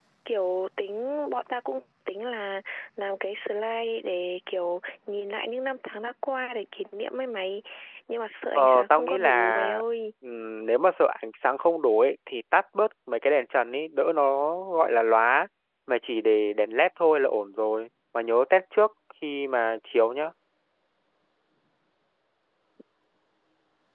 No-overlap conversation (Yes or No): No